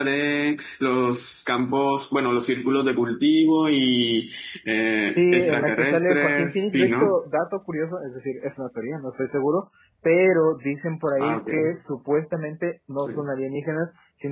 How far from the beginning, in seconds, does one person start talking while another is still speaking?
5.2 s

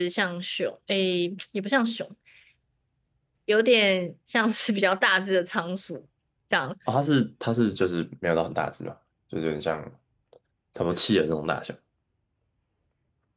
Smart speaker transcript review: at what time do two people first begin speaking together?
none

